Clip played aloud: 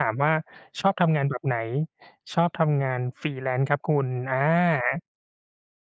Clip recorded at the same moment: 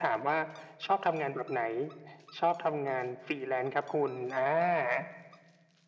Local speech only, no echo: none

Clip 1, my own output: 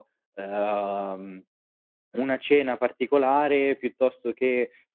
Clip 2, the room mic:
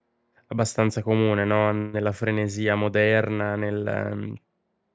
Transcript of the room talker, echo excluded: abbastanza comune, no, nella frenesia moderna, nel

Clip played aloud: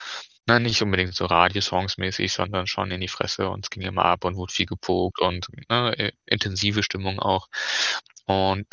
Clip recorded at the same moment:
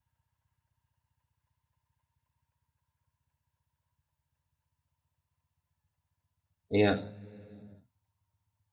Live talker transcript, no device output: Ja.

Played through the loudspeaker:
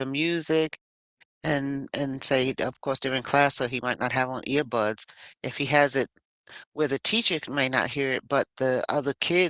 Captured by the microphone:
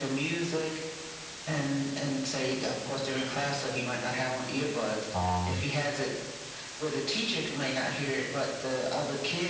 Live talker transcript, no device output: um,

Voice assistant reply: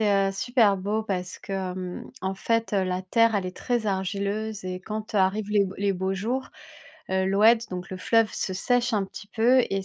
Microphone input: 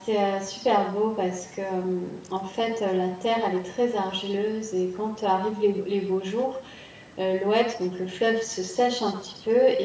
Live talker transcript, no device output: none

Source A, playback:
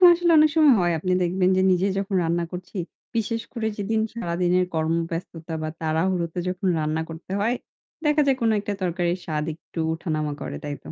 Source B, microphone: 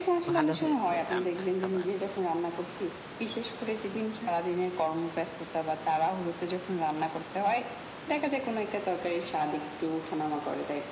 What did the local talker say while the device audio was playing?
ভালো হয়েছে রান্না খাবার।

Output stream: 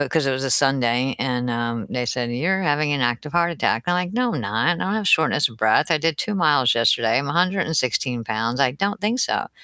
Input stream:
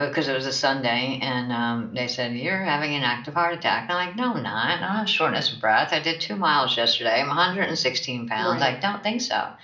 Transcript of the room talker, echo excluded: Right.

